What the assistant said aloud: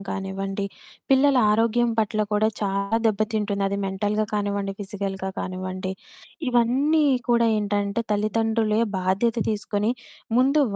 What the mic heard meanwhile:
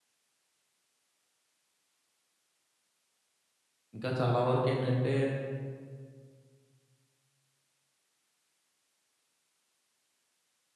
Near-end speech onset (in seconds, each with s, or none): 4.0 s